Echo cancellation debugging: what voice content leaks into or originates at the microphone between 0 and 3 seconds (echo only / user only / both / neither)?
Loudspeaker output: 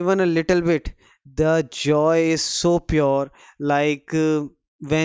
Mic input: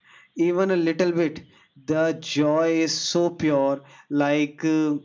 echo only